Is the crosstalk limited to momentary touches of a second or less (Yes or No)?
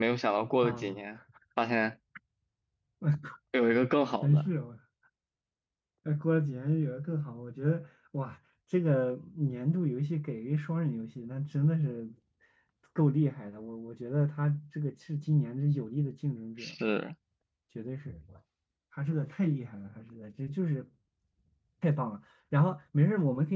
Yes